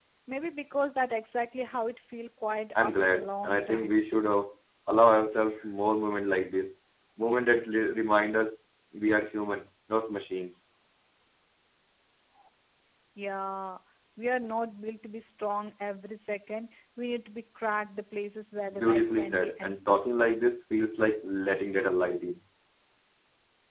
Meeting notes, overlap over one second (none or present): present